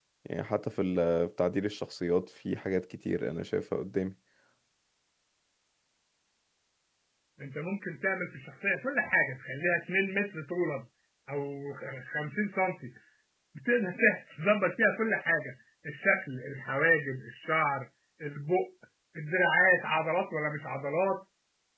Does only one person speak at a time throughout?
Yes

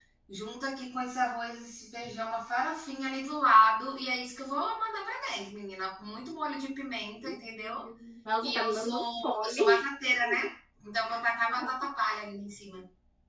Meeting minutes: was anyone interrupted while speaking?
Yes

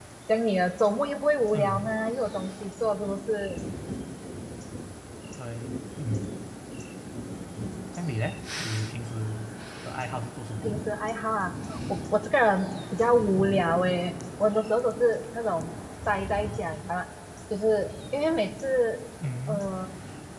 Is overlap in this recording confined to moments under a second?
Yes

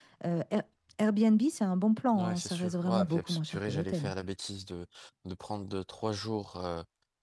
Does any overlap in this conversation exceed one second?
Yes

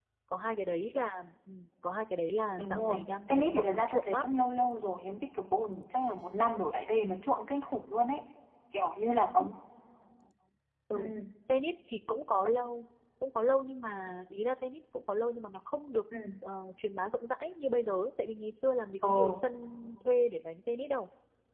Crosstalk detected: Yes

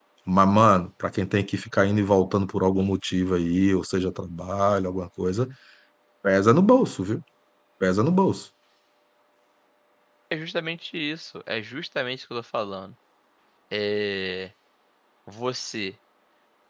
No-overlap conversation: Yes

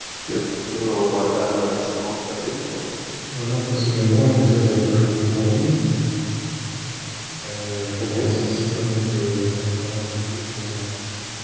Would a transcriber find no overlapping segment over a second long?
Yes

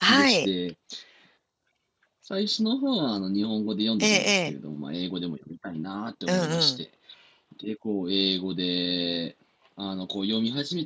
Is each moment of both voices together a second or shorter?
Yes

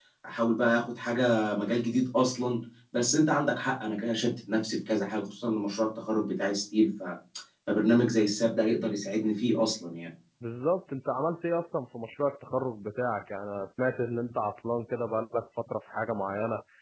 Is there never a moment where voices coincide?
Yes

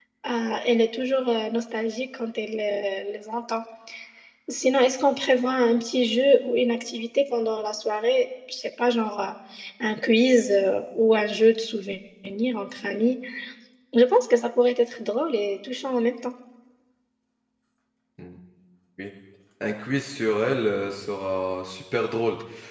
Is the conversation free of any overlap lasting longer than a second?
Yes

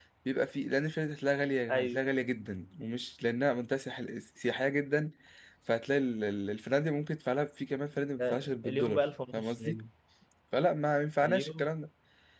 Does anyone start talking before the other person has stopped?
Yes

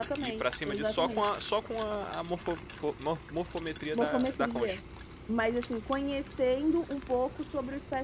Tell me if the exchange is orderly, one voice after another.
No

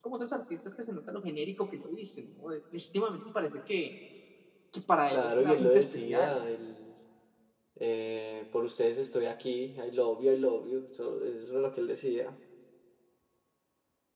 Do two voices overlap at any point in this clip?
Yes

